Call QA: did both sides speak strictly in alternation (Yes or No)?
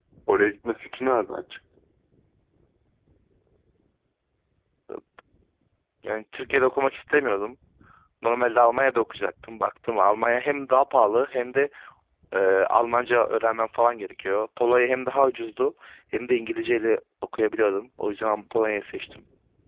Yes